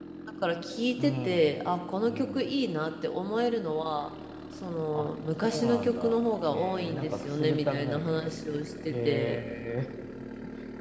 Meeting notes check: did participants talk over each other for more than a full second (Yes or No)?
Yes